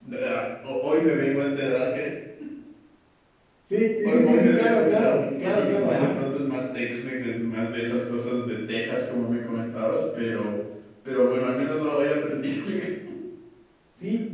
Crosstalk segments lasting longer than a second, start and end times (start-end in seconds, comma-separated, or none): 4.0-6.2